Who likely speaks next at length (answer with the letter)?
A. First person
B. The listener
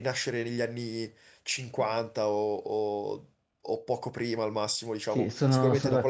B